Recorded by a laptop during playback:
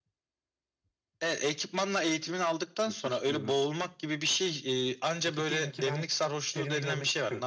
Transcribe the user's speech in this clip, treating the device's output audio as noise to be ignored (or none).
none